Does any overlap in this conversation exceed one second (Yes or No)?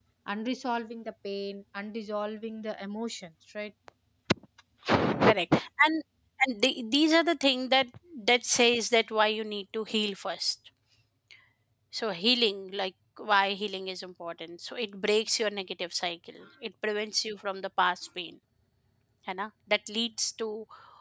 No